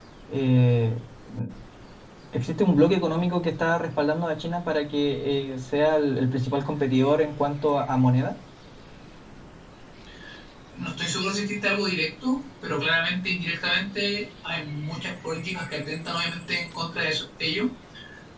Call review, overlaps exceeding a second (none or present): none